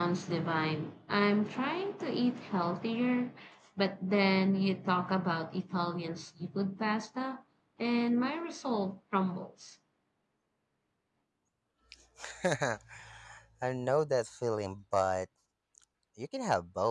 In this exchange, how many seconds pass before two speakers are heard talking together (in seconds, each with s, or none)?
none